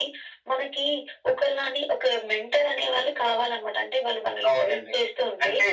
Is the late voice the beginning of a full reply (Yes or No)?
Yes